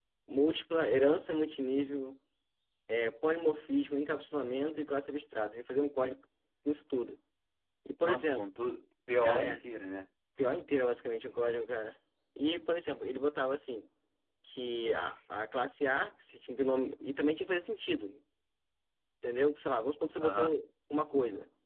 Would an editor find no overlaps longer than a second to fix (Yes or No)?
Yes